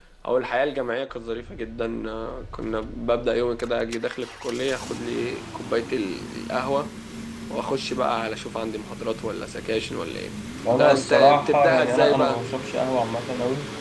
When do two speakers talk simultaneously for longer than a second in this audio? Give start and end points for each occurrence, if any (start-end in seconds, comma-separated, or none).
10.8-12.4